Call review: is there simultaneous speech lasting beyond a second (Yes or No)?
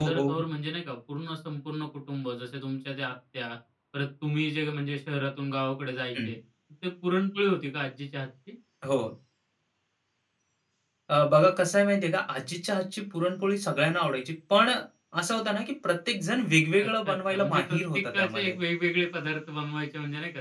Yes